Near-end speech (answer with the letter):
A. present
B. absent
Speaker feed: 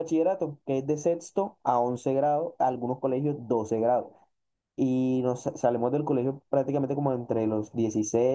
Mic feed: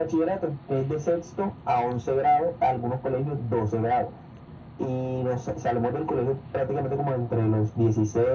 B